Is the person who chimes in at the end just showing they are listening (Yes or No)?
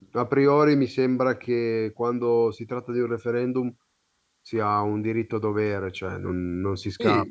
No